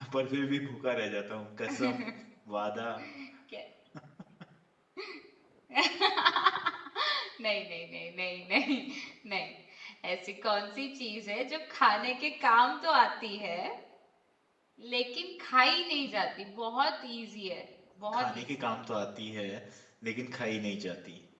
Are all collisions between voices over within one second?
Yes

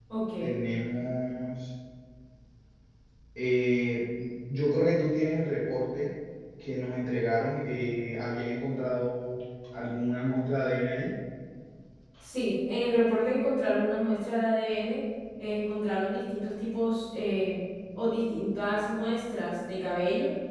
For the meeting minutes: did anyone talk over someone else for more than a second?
No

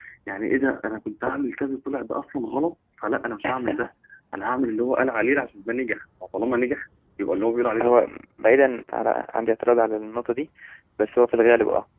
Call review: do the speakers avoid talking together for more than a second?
Yes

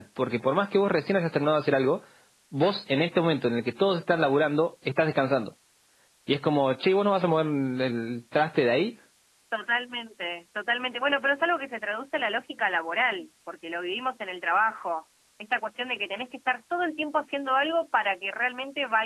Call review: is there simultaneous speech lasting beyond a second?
No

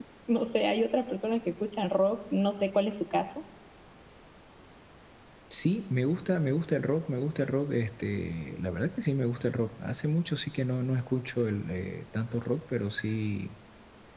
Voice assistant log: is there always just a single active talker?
Yes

